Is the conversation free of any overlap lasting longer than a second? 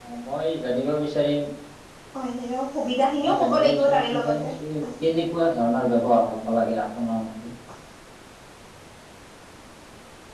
No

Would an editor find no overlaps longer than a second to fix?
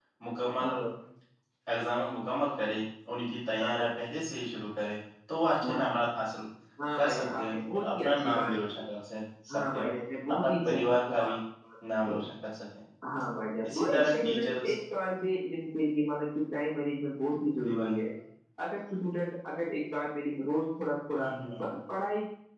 No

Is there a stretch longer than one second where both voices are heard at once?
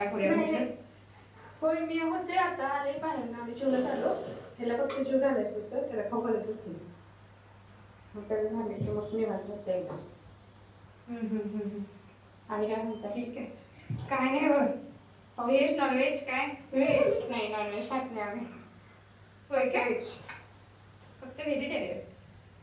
No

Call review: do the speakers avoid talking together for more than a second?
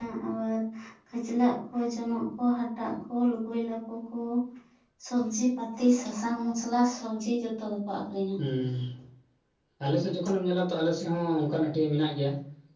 Yes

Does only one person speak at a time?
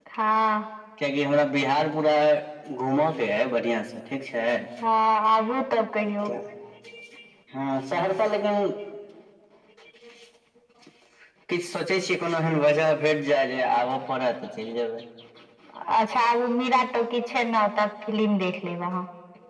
Yes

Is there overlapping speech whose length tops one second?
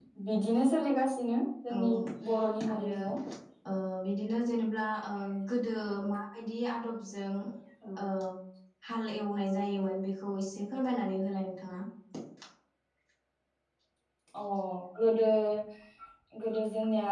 No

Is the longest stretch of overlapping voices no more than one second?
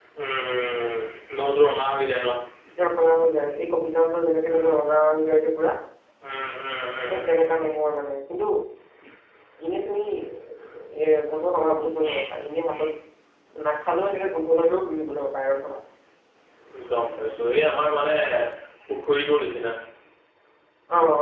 Yes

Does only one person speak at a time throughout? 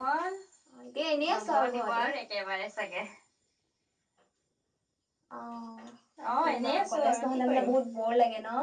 No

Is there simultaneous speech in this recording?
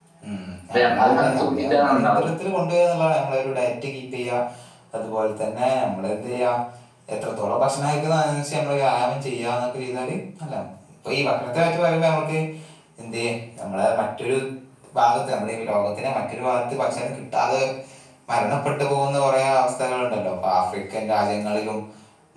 Yes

